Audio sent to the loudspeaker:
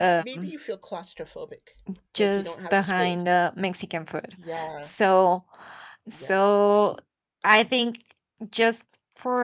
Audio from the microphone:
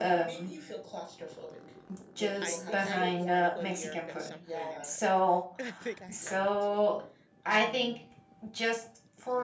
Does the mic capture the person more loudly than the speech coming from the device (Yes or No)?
No